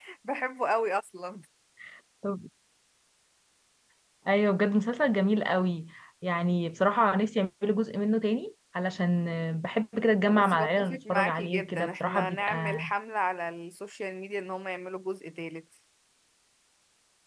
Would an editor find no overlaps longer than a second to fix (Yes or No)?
No